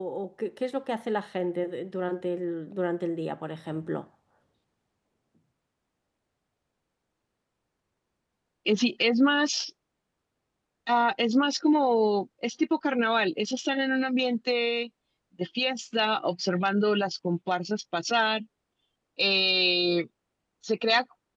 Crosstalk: none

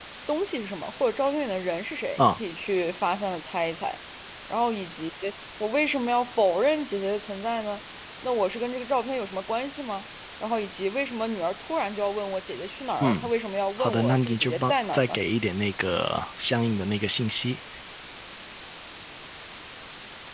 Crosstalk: present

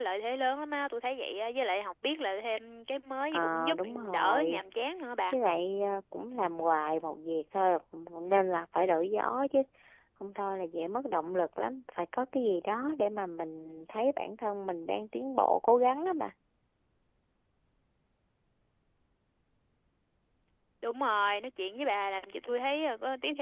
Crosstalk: present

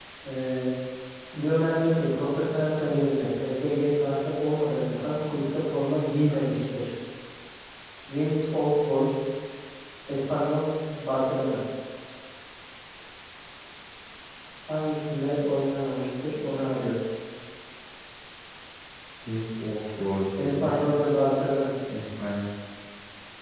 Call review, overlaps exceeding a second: none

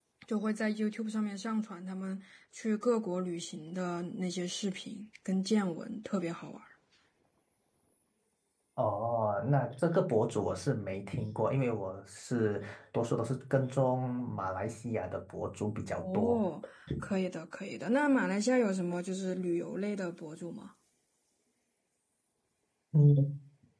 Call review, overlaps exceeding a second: none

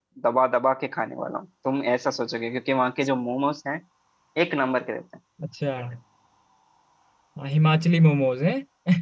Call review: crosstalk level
none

